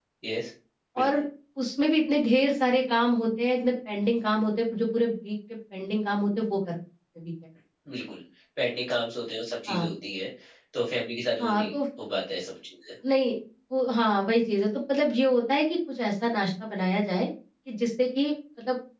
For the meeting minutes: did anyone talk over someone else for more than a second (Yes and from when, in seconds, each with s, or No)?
No